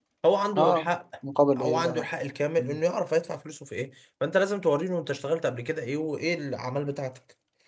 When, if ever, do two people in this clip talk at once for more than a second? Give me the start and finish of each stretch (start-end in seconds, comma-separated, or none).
none